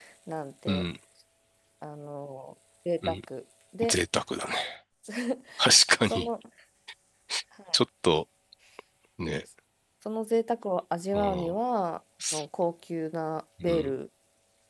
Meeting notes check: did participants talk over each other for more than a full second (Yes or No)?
No